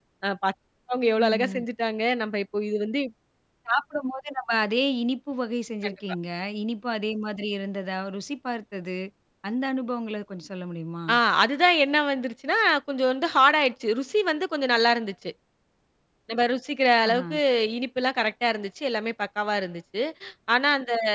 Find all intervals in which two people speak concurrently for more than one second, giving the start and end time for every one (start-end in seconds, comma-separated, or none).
none